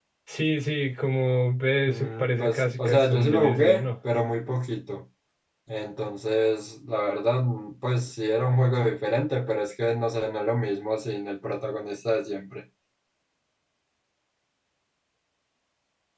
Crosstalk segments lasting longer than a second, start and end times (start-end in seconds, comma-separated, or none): 1.9-3.9